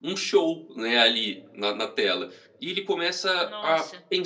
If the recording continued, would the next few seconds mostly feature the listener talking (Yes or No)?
No